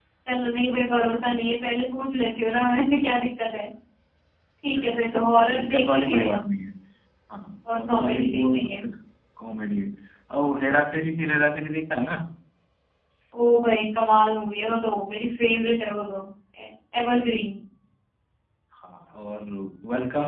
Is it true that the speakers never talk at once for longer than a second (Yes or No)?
No